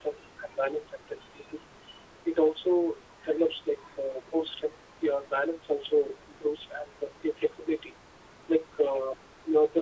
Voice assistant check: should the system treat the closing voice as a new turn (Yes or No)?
No